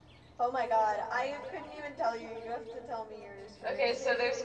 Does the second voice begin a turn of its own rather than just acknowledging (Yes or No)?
Yes